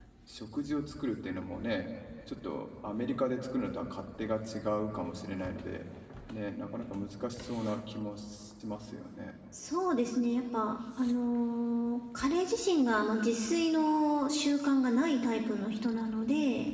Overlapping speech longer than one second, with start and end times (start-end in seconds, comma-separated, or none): none